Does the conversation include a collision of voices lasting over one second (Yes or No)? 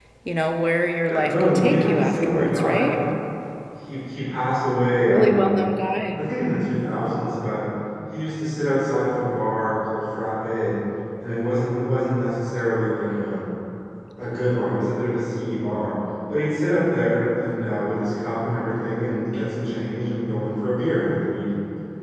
Yes